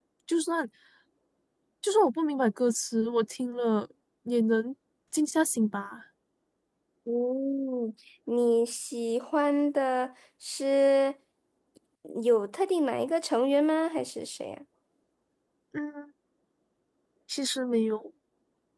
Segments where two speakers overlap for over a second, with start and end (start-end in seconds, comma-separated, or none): none